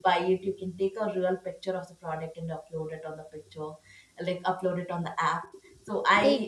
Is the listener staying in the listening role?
Yes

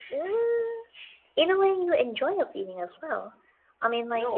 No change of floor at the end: Yes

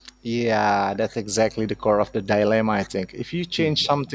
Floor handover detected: No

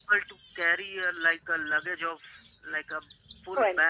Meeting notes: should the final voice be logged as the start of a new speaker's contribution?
No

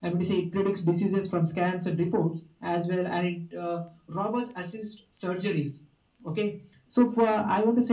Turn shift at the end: No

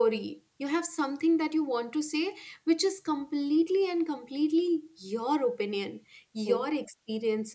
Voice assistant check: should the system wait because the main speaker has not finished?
Yes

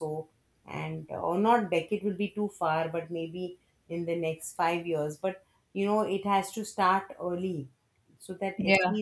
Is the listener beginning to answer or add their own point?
No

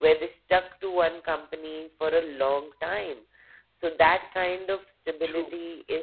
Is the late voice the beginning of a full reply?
No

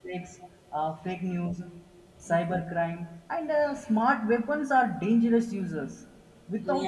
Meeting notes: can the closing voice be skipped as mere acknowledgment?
Yes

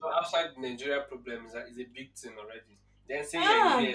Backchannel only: Yes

